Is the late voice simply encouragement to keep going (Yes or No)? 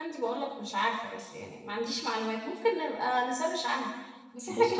Yes